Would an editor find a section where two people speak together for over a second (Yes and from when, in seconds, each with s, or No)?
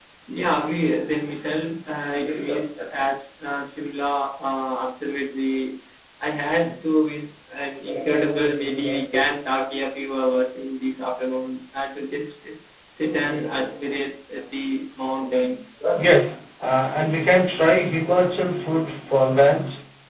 No